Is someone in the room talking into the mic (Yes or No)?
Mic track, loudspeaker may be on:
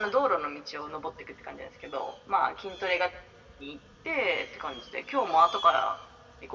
No